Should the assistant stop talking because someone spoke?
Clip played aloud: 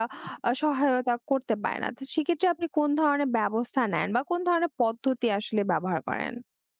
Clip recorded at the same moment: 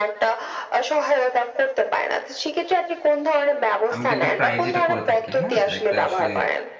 Yes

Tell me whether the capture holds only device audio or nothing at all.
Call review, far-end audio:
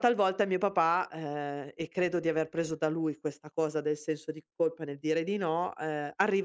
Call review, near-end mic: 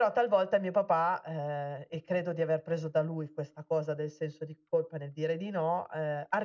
Yes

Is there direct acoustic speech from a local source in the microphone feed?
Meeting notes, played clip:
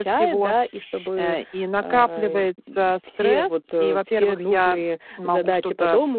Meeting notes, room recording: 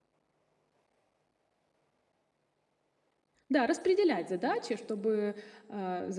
Yes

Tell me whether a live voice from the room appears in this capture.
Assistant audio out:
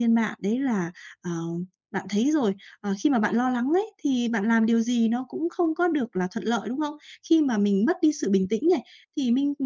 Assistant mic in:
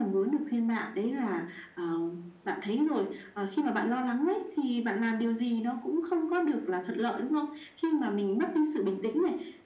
No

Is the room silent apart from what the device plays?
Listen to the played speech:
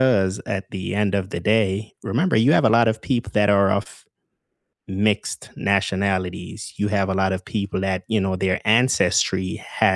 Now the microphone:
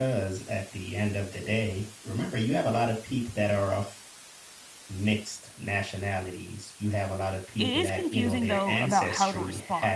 No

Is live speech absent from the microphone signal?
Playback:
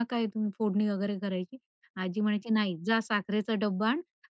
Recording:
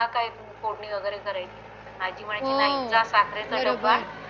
No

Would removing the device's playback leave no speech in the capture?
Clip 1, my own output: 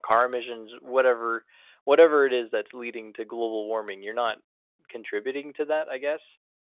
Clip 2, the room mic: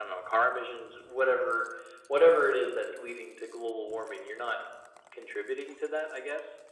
Yes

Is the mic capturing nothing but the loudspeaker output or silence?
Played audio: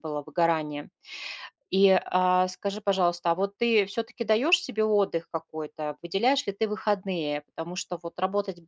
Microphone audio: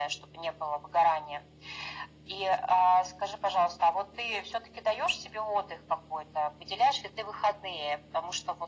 Yes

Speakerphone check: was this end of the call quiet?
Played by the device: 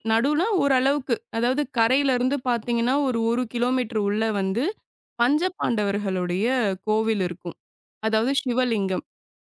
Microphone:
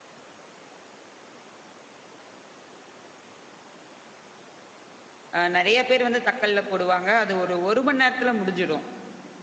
No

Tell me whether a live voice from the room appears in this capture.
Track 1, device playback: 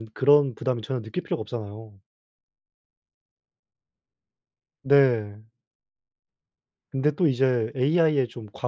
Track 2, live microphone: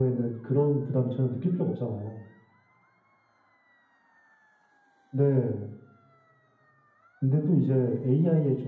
No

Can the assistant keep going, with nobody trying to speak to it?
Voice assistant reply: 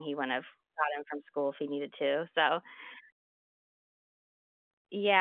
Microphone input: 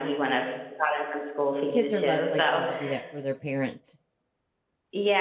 No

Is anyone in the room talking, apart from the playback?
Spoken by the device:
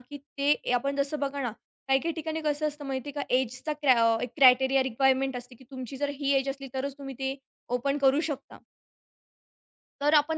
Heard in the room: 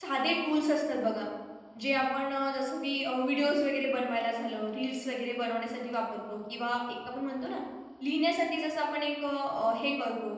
Yes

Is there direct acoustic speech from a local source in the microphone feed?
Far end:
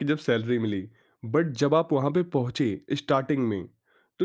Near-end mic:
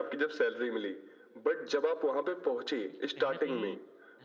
Yes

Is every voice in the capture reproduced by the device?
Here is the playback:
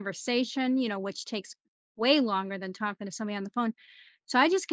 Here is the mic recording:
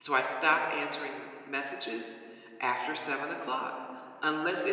No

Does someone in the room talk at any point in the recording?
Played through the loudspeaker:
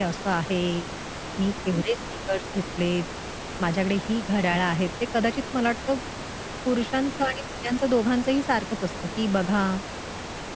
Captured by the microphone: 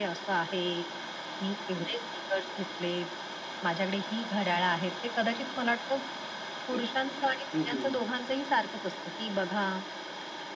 Yes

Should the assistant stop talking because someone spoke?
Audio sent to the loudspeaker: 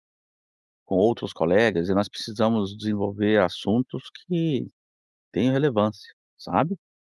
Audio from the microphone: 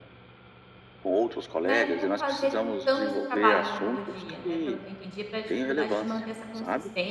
Yes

